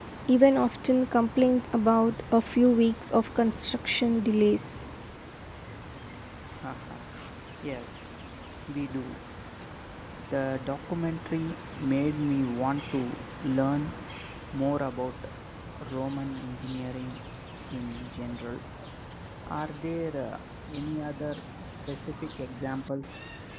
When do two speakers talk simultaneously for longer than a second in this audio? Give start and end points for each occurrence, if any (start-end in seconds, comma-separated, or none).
none